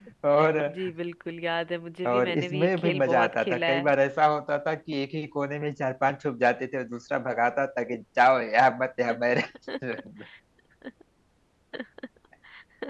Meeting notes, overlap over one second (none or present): present